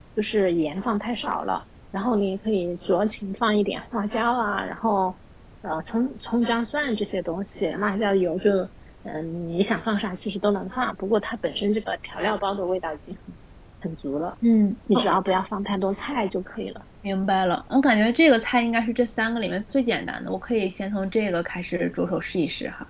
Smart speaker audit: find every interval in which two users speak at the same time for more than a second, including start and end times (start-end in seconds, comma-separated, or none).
none